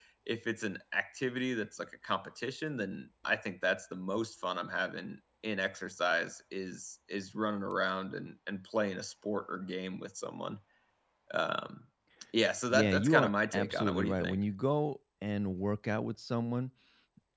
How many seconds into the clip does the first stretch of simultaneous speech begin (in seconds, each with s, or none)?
12.7 s